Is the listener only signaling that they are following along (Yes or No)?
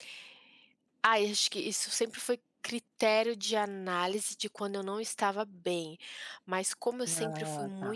Yes